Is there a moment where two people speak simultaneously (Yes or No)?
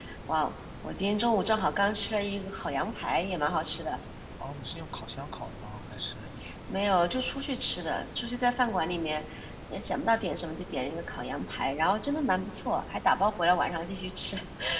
No